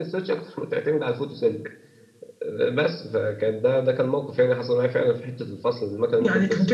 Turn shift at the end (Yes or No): Yes